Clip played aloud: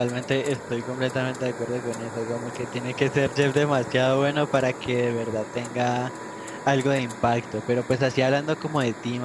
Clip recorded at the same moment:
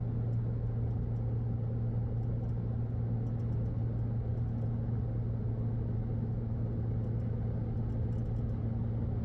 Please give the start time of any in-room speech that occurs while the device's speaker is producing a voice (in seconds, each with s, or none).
none